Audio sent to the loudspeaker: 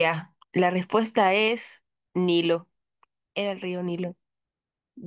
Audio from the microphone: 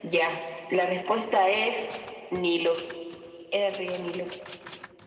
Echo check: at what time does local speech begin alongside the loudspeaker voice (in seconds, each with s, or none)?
none